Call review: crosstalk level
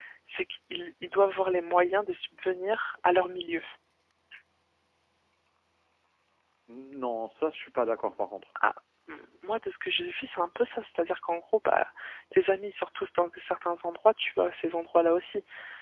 none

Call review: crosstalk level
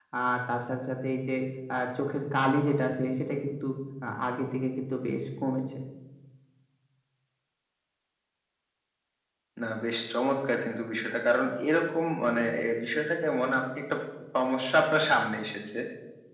none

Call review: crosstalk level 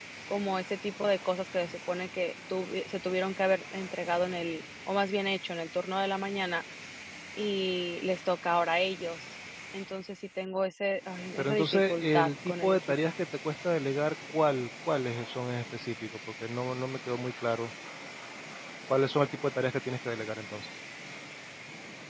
present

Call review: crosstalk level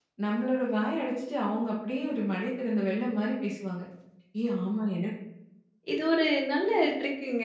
none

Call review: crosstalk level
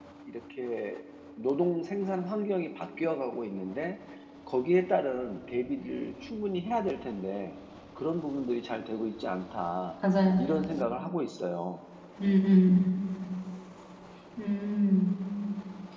none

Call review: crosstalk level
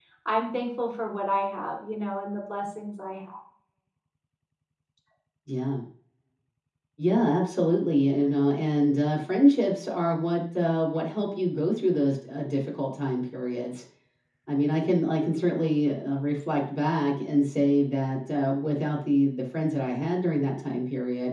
none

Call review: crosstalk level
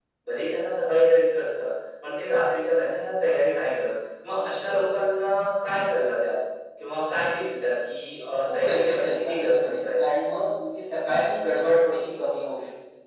present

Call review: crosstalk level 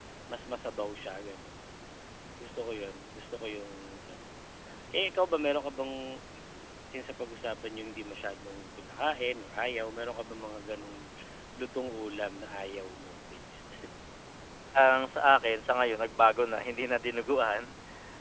none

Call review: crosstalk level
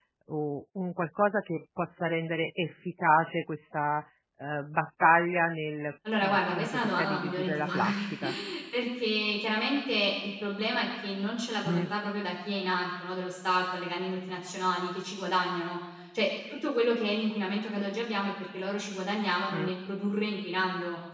present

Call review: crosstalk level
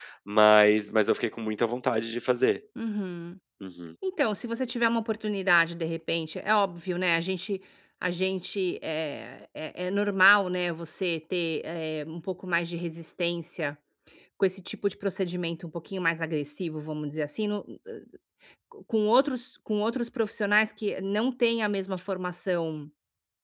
none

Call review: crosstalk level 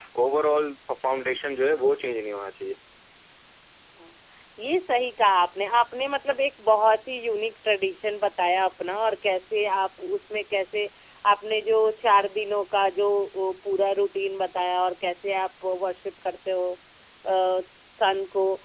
none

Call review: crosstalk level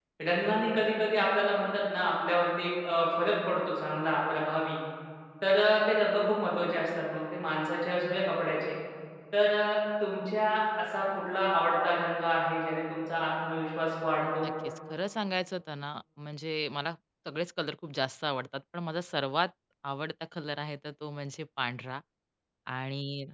none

